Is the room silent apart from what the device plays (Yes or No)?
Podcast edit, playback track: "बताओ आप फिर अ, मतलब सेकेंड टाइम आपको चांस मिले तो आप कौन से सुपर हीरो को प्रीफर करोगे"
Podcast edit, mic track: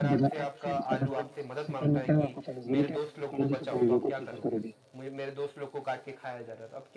No